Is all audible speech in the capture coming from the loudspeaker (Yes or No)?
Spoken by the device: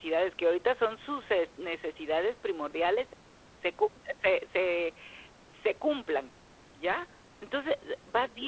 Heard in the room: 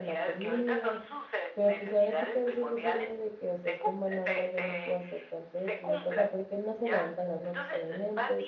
No